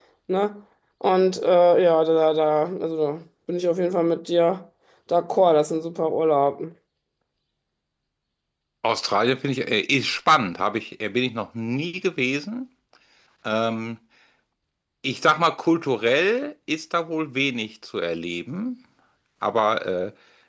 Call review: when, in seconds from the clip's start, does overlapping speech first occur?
none

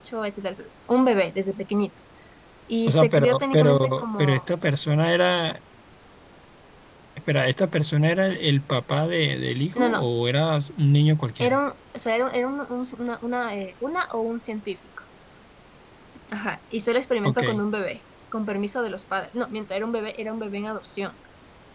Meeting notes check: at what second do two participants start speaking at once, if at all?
3 s

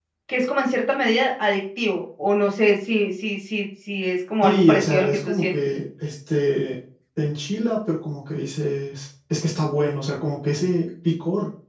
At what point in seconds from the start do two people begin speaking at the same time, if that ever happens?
4 s

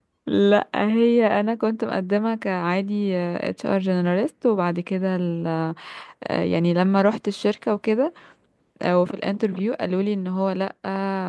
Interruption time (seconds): none

